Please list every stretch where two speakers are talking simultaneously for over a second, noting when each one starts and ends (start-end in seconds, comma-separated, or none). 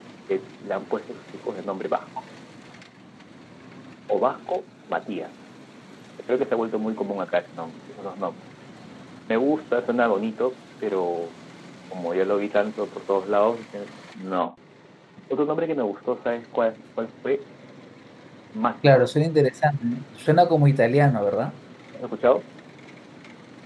none